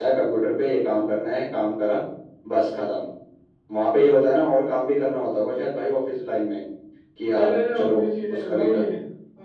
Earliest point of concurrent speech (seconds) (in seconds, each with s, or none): 7.4 s